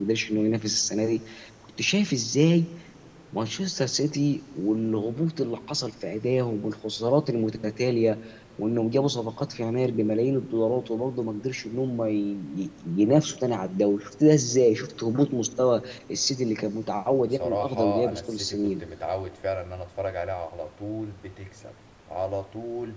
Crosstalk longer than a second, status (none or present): present